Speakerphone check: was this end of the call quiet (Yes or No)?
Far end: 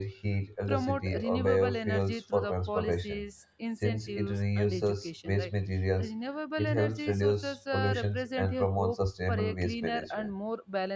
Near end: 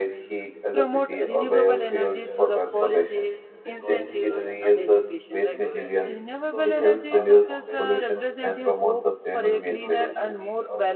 No